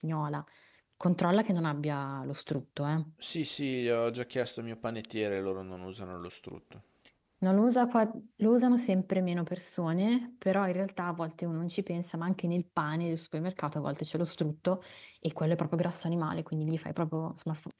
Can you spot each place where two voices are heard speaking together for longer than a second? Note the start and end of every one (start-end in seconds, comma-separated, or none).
none